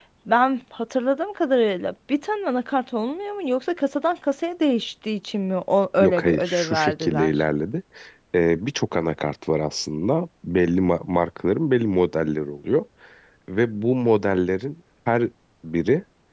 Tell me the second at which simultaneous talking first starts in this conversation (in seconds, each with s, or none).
6.0 s